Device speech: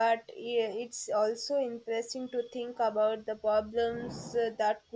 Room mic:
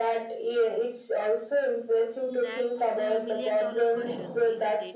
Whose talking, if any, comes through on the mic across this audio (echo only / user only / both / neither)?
both